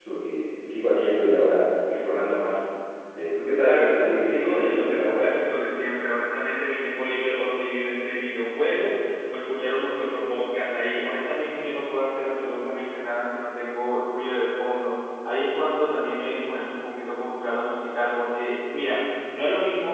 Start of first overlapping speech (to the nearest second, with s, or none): 4 s